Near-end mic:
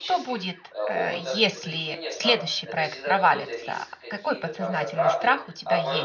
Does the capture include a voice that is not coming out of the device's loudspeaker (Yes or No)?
Yes